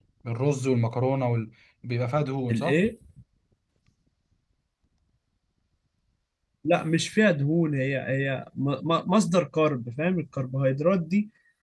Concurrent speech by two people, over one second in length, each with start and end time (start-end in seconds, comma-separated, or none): none